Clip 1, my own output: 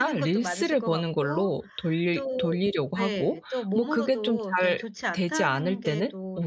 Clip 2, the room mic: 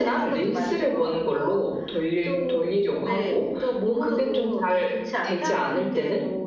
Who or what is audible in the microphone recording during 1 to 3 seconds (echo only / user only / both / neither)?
echo only